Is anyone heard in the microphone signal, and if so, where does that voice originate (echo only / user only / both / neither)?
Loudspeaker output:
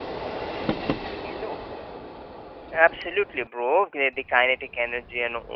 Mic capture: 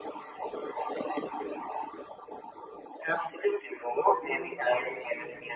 both